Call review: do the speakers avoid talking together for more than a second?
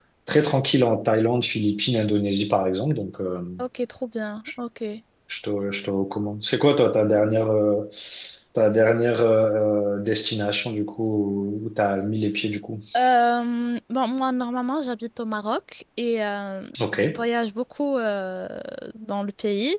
Yes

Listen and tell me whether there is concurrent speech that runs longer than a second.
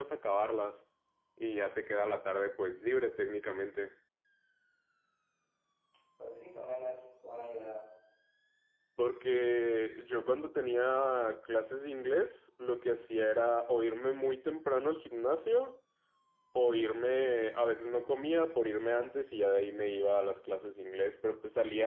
No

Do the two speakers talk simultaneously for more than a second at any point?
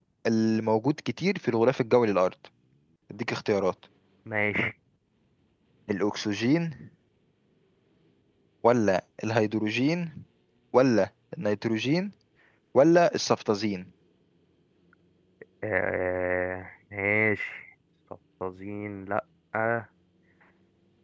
No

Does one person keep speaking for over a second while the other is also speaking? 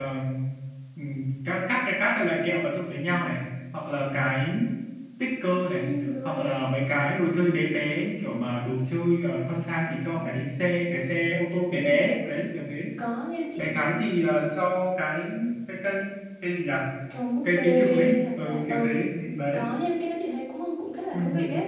Yes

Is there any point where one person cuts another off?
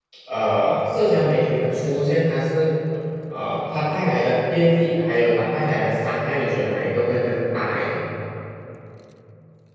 No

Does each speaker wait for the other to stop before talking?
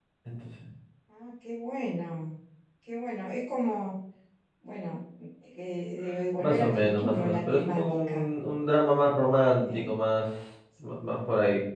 No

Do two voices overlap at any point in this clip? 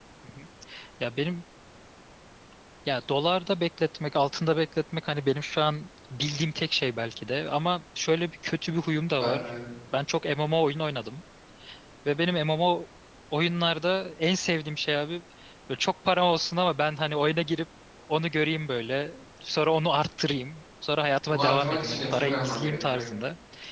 Yes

